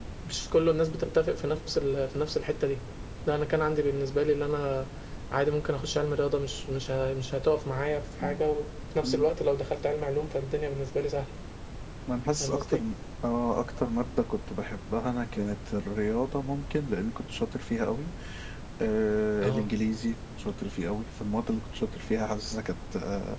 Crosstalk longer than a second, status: none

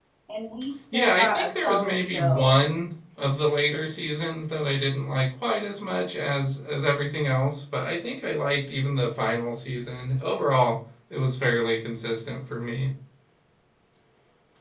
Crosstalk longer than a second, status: present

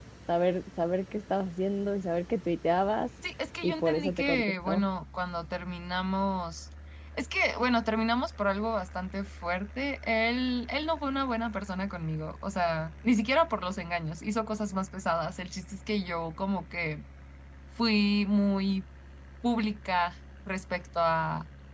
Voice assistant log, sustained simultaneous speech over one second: present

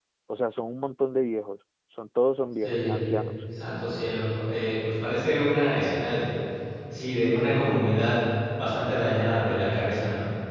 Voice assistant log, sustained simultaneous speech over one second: none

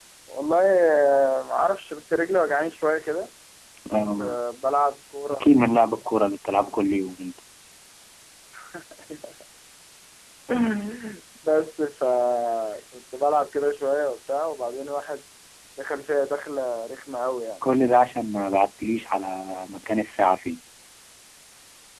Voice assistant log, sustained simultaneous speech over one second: none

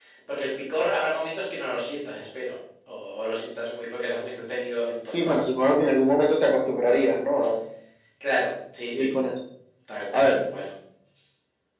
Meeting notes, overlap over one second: none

